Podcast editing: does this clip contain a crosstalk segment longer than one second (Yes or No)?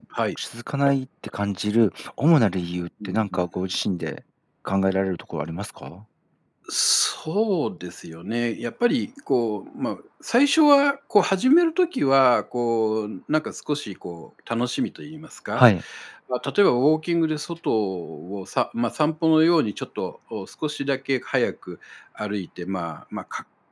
No